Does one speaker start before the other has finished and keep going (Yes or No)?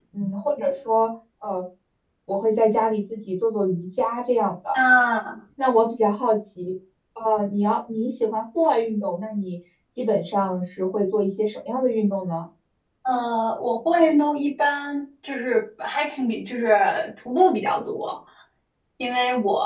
No